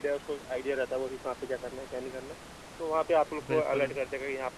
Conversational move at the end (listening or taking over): listening